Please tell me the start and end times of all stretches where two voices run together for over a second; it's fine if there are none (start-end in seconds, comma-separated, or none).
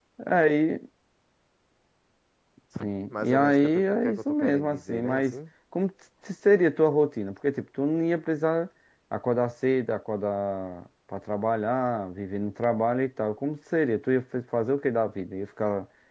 3.1-5.3